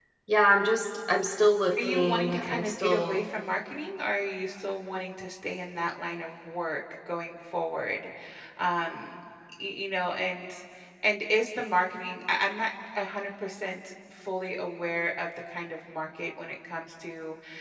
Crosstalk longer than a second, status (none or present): present